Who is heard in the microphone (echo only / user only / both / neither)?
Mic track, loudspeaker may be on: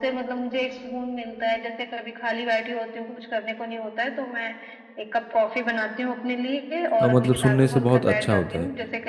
both